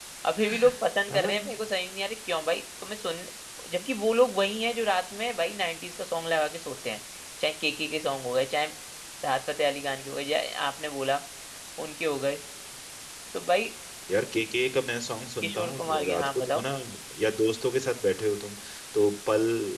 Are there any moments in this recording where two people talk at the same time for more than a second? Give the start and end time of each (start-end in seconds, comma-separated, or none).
15.4-16.6